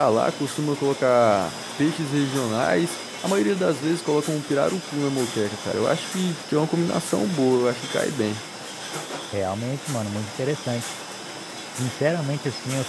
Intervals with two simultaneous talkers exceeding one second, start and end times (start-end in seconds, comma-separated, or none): none